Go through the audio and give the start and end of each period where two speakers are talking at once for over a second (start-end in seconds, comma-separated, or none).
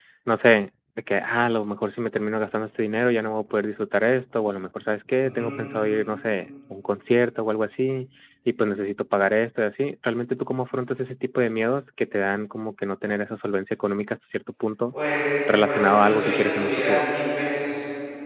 15.6-17.1